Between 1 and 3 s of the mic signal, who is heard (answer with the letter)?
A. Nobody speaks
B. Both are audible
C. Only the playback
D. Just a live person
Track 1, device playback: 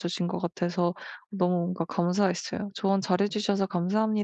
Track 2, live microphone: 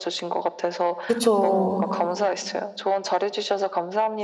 B